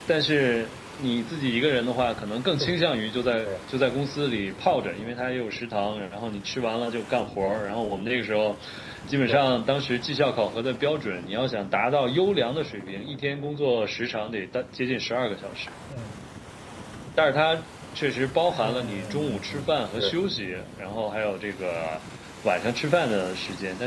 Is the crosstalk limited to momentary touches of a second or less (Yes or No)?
No